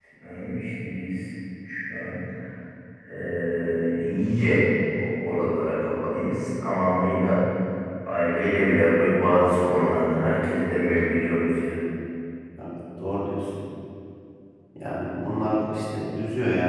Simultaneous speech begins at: none

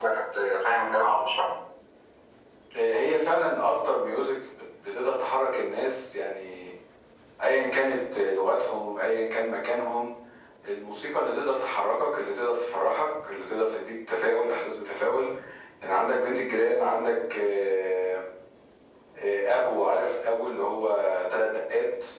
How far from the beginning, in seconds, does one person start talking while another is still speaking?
none

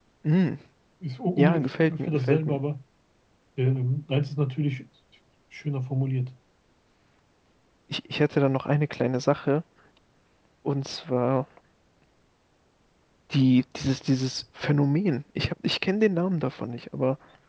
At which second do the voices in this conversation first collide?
1.4 s

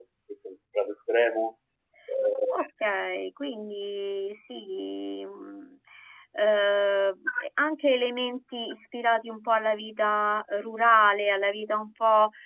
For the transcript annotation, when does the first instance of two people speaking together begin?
none

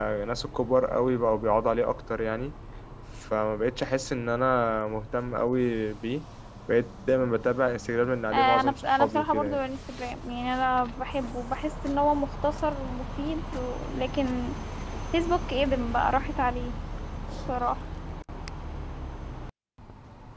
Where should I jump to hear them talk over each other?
8.3 s

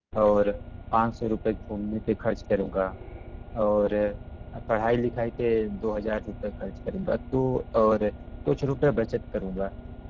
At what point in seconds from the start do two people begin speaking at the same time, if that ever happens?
none

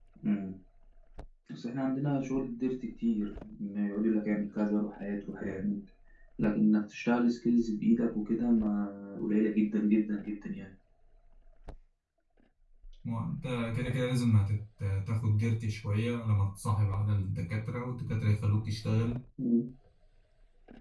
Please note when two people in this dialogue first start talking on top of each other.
none

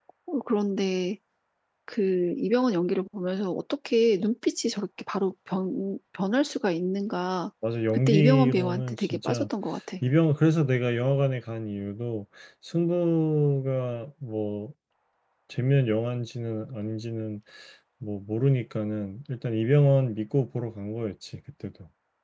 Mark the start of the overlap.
8.1 s

